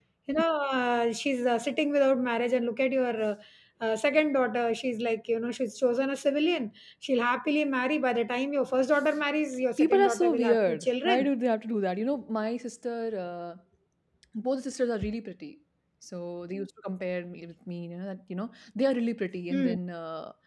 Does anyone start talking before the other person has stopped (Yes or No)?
Yes